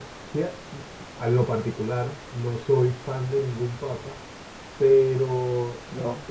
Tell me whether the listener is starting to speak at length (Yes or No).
No